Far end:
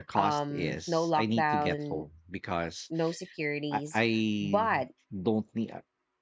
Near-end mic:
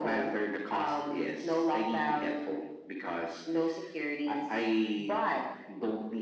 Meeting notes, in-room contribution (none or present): none